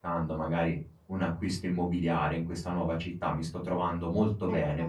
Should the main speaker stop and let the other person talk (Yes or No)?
No